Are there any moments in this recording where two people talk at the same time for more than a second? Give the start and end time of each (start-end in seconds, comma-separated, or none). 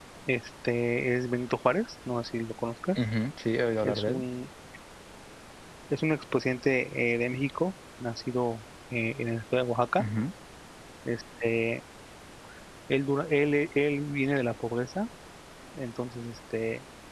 none